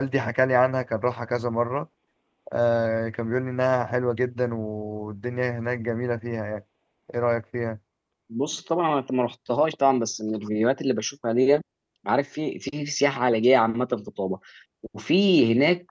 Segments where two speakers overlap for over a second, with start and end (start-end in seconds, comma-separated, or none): none